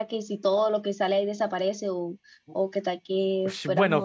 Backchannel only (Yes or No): No